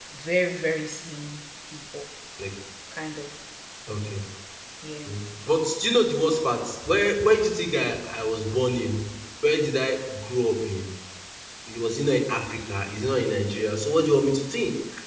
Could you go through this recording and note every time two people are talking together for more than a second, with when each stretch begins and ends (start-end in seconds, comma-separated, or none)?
none